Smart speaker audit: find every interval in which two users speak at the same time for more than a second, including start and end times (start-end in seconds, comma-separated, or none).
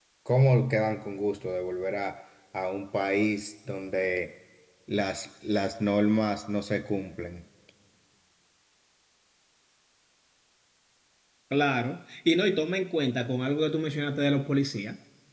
none